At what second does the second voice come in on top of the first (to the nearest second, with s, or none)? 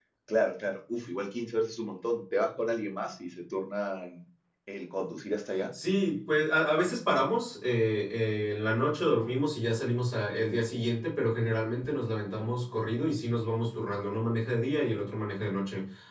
none